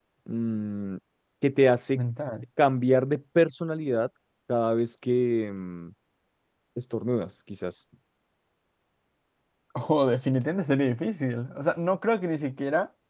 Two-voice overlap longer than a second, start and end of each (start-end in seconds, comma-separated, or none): none